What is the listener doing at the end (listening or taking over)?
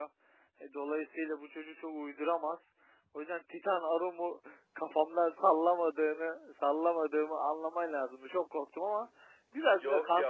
taking over